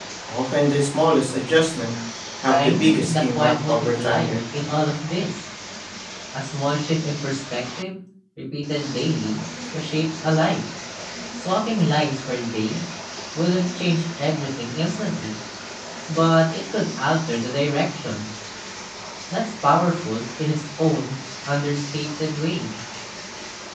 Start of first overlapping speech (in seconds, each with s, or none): 2.5 s